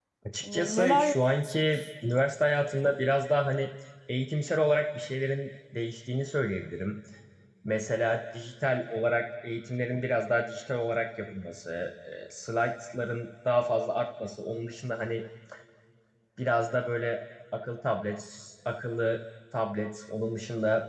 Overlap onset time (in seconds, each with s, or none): 0.5 s